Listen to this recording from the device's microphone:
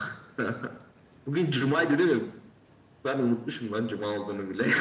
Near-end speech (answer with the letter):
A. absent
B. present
A